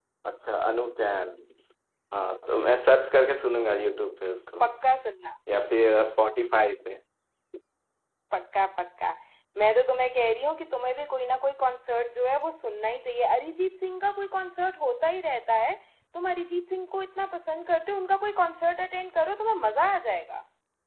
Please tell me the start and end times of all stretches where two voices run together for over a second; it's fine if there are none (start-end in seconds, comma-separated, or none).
none